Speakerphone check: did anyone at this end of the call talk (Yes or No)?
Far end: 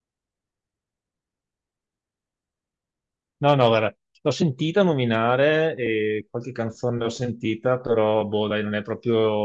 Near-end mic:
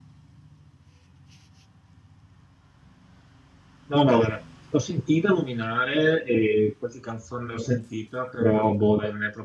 No